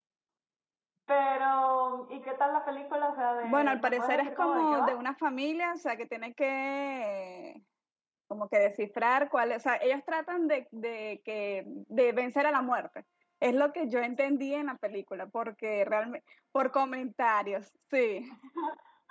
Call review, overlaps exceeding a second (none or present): present